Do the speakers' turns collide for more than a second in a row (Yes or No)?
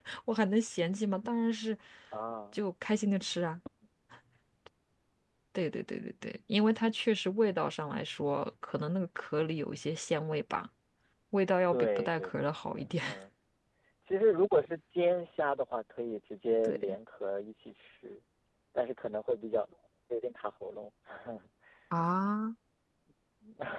Yes